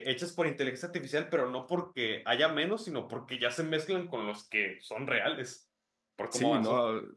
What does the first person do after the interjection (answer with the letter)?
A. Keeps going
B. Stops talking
B